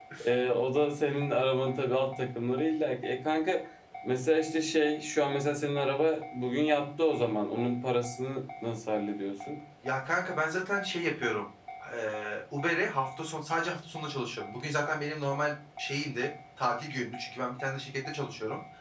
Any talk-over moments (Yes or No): No